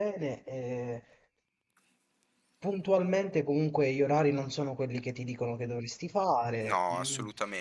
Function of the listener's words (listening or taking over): taking over